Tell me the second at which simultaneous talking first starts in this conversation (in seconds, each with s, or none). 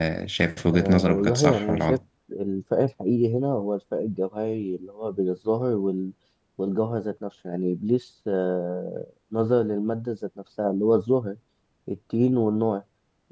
0.7 s